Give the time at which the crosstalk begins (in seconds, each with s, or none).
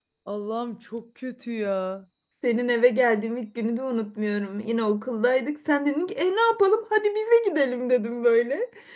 none